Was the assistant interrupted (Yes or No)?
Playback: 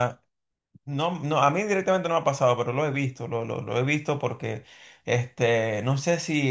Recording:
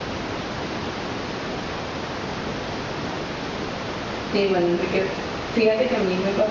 Yes